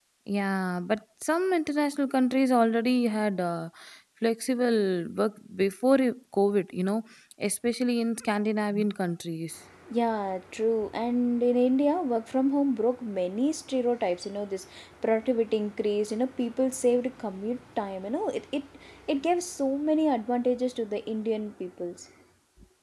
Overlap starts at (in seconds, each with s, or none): none